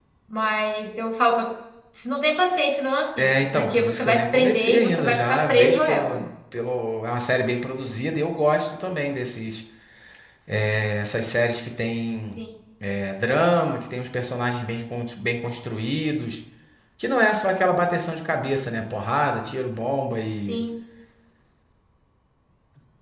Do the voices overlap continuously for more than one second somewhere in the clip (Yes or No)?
Yes